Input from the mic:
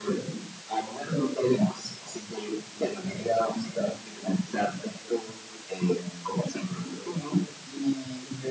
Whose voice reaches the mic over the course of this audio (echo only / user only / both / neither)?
echo only